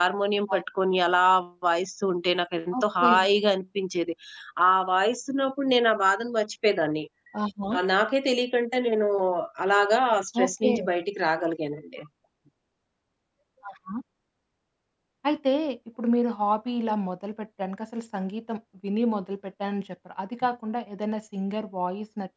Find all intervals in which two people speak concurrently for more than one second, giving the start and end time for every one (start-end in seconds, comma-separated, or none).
none